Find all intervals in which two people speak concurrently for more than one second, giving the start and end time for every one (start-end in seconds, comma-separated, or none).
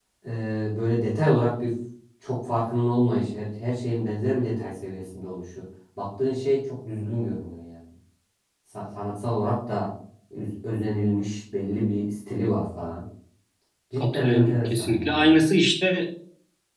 14.0-15.3